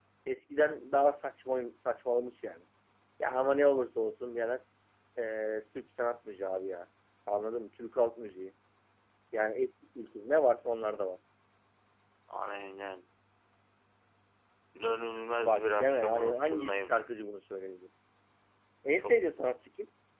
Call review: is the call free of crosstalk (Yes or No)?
No